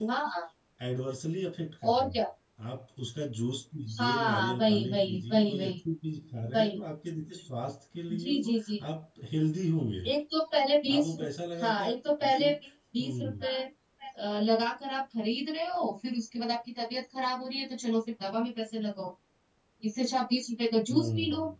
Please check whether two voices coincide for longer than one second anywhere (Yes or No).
Yes